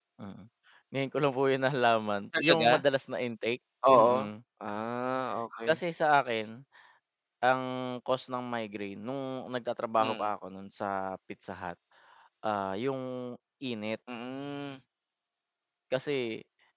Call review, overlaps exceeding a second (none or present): none